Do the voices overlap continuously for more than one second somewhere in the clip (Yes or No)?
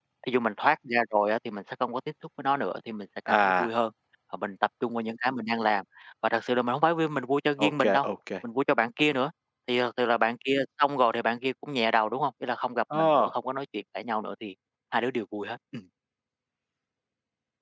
No